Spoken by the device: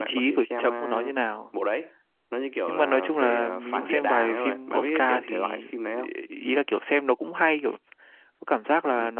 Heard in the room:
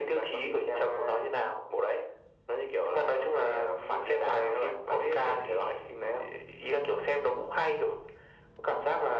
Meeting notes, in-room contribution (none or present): none